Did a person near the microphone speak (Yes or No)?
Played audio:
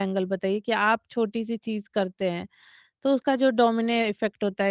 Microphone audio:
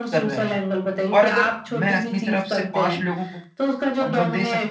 Yes